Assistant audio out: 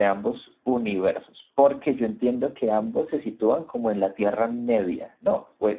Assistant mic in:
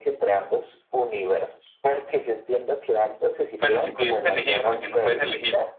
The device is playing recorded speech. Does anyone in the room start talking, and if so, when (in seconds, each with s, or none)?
3.6 s